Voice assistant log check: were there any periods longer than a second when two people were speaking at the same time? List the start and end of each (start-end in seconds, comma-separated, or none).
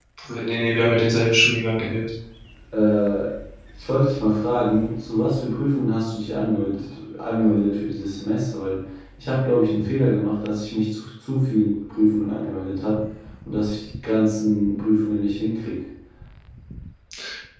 none